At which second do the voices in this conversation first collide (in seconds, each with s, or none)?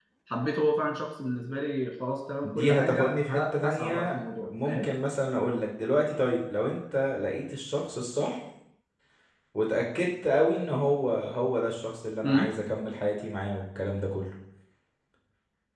2.4 s